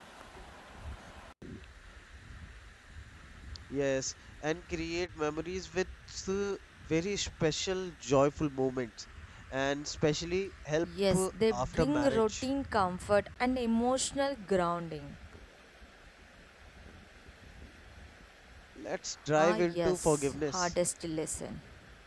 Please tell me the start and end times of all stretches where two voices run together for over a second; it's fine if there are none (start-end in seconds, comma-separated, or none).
10.8-12.4, 19.4-20.7